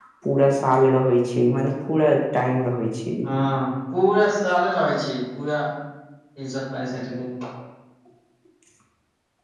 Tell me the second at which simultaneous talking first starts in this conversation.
none

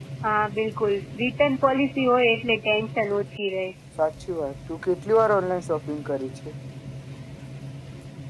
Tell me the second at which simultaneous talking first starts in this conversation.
none

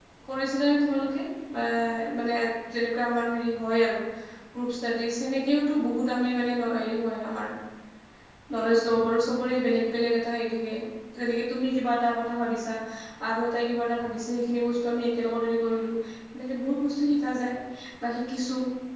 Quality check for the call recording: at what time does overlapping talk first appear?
none

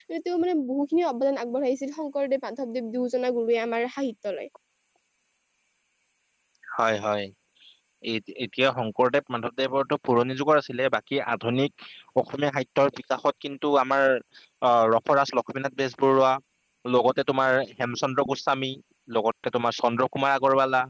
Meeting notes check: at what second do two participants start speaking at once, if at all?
none

